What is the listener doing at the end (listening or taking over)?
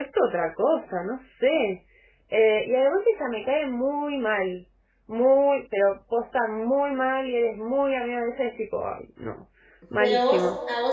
taking over